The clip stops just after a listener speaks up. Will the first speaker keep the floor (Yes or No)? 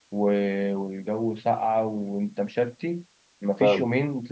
Yes